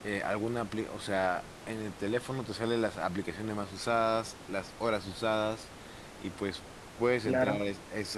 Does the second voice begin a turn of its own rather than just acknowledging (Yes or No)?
No